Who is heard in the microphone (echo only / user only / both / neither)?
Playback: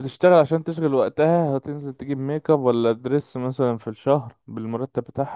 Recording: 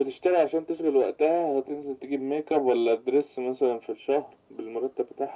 echo only